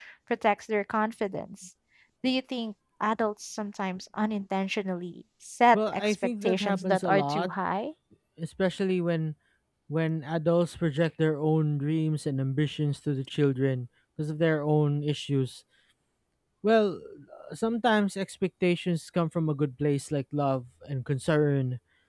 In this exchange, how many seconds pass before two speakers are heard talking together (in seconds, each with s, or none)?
5.7 s